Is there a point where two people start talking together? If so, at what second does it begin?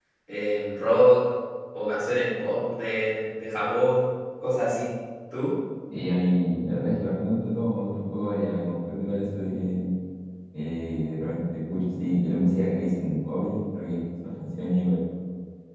none

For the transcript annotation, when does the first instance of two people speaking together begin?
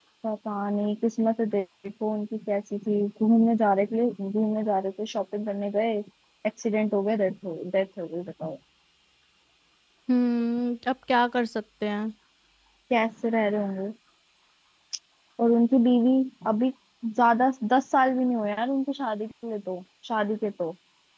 none

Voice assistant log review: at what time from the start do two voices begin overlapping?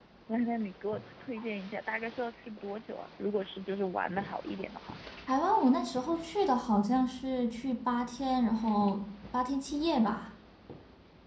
none

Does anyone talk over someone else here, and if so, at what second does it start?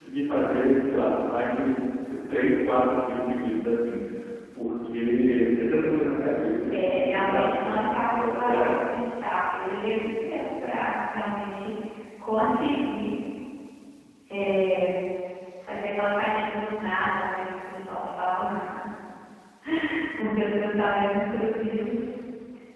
7 s

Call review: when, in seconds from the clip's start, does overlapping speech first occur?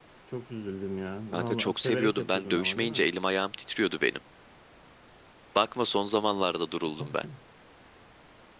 1 s

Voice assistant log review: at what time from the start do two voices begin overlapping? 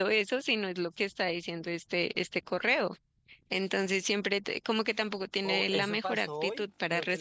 5 s

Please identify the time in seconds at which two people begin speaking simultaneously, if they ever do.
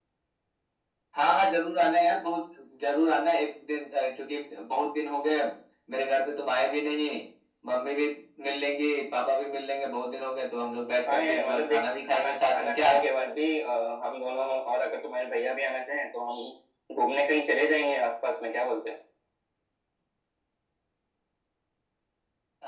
11 s

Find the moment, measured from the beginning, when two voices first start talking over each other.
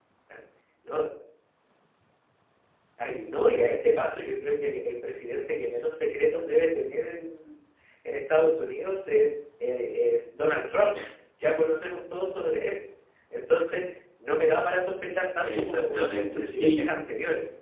15 s

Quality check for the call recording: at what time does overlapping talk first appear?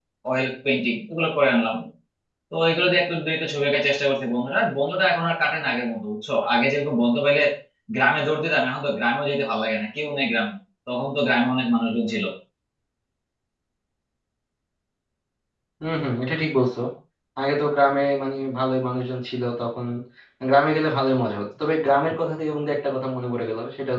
none

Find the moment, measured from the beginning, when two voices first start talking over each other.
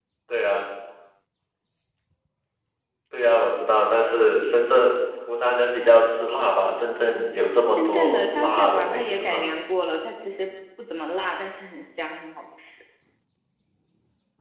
8 s

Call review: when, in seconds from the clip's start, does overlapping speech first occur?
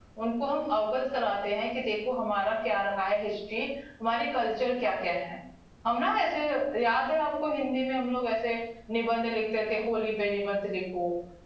none

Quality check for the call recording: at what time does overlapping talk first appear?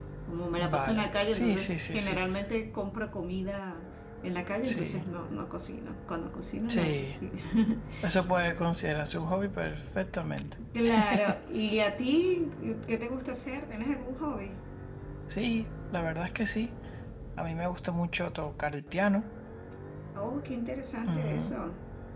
1 s

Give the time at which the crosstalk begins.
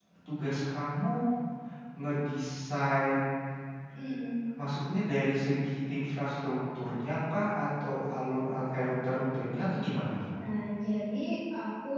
none

